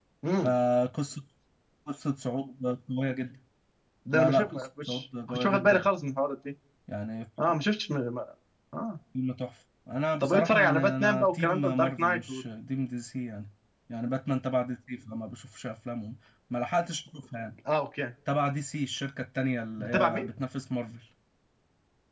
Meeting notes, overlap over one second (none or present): present